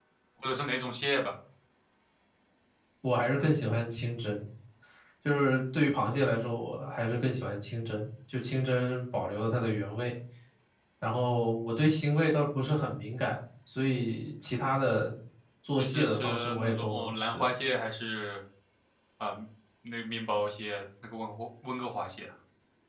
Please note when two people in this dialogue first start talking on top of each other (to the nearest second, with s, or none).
16 s